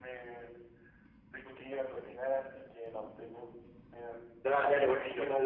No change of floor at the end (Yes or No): No